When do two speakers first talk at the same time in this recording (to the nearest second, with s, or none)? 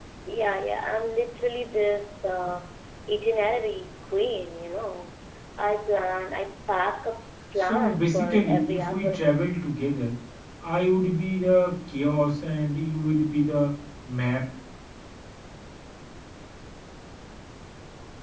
8 s